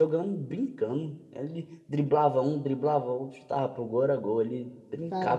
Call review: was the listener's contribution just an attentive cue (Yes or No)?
No